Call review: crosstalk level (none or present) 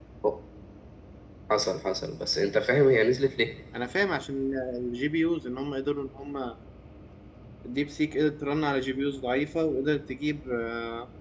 none